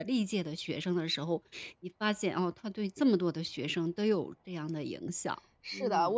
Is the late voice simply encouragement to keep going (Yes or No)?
No